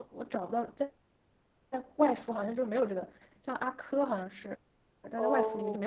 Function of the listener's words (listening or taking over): taking over